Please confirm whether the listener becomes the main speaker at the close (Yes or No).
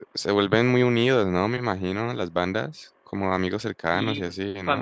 Yes